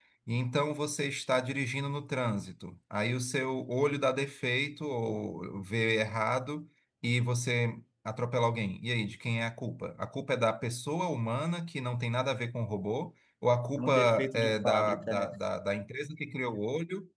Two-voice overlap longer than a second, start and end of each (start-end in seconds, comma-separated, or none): 13.8-15.3